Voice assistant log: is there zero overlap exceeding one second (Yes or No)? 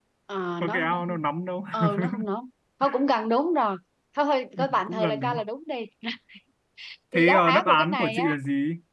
No